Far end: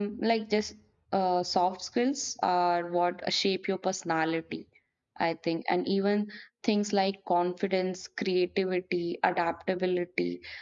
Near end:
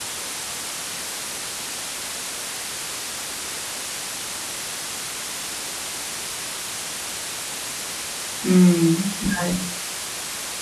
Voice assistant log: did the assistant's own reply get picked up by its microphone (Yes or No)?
No